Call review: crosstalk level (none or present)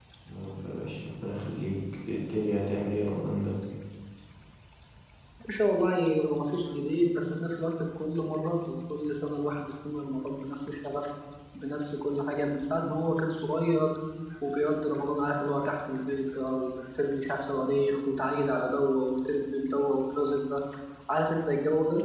none